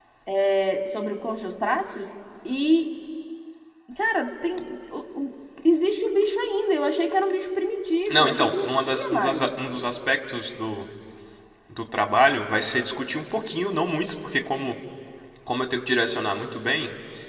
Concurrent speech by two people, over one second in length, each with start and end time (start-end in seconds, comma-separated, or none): 8.1-9.5